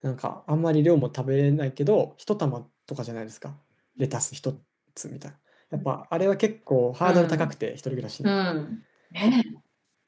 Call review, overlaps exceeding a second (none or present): none